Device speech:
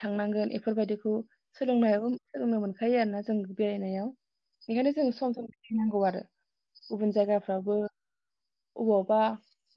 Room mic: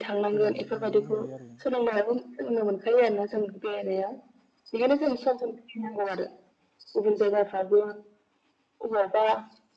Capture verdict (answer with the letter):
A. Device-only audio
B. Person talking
B